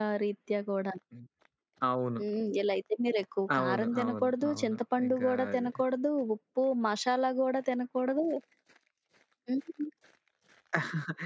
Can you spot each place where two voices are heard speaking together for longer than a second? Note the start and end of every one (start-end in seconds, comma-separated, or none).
3.6-5.7